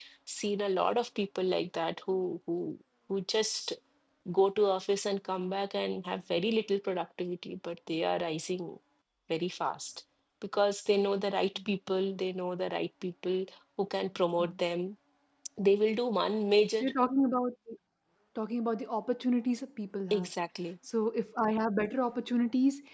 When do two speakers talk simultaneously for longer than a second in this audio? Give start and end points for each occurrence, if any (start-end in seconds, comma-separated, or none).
none